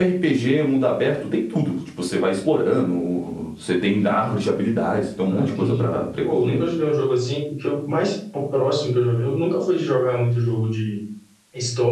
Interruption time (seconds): 5.3 s

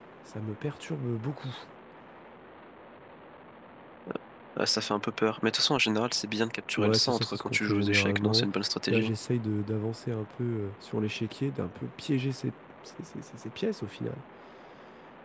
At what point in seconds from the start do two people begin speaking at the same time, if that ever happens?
6.8 s

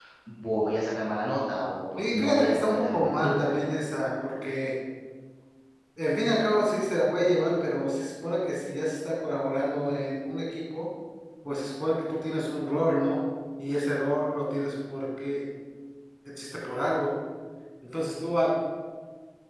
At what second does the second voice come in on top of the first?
2.0 s

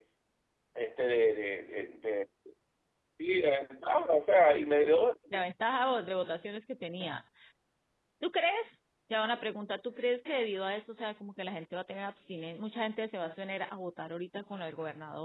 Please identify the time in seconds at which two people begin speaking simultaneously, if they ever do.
none

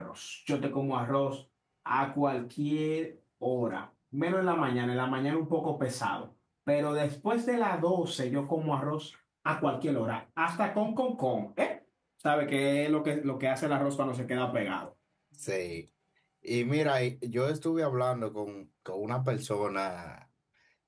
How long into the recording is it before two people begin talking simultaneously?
none

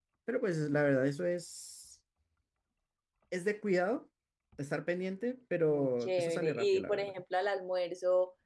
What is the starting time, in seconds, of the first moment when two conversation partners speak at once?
5.7 s

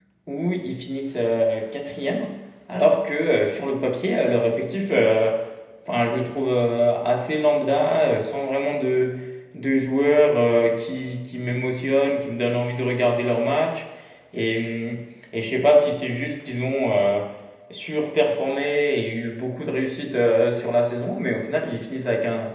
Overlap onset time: none

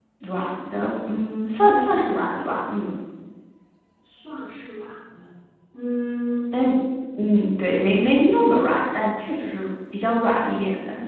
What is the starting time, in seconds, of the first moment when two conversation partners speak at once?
none

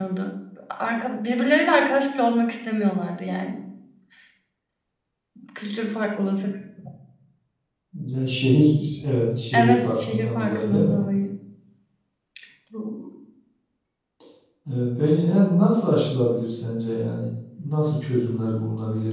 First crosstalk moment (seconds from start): 9.5 s

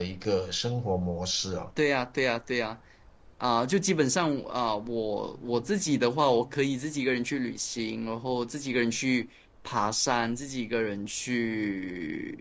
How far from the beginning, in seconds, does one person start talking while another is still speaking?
none

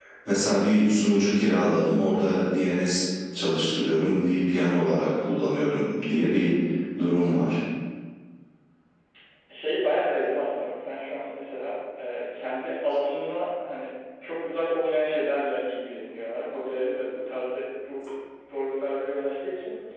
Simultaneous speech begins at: none

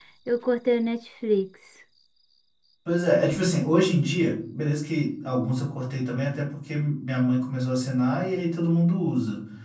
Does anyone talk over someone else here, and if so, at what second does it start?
none

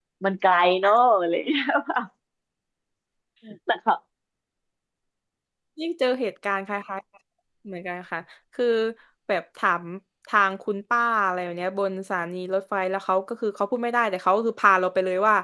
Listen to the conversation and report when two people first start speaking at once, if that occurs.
none

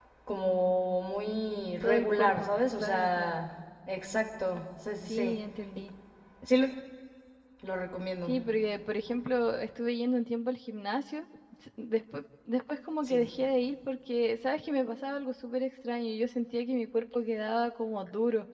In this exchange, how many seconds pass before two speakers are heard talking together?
1.8 s

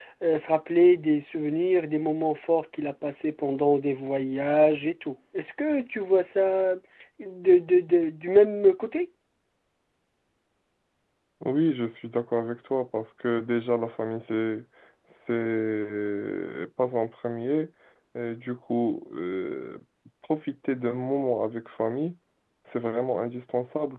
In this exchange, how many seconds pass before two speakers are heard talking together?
none

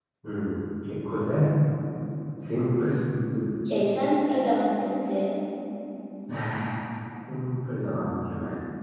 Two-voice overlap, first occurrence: none

